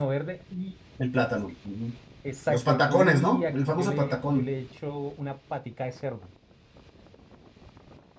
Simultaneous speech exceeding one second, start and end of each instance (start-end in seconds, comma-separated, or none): 2.5-4.5